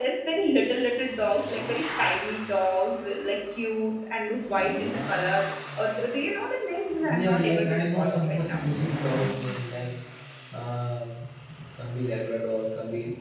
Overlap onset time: 7.0 s

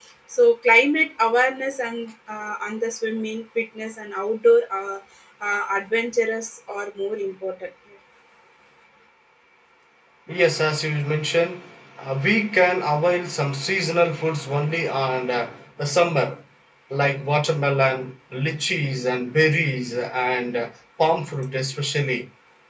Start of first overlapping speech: none

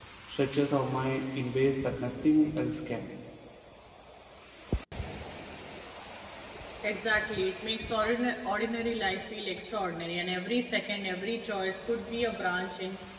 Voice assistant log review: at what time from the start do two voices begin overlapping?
none

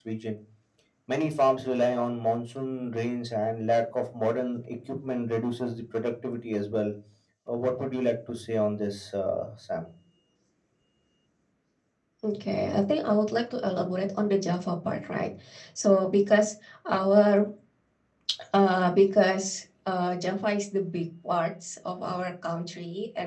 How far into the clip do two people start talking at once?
none

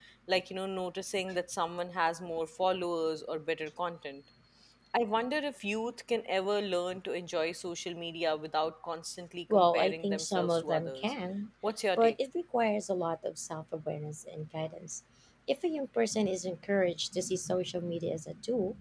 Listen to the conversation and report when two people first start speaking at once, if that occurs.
9.5 s

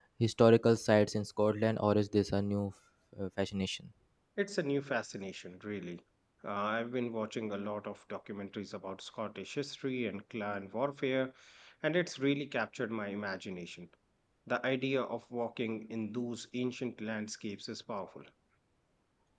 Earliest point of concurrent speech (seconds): none

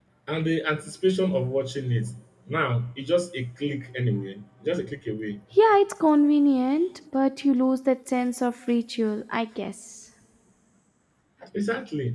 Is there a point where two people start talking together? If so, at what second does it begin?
none

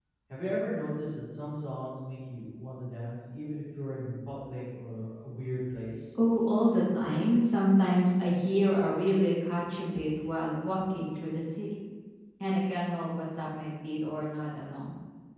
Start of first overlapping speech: none

